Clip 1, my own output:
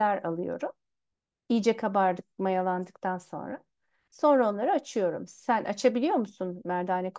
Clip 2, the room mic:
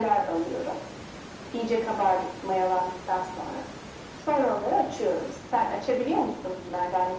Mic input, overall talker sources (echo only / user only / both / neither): echo only